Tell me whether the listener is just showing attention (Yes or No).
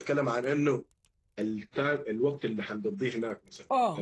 No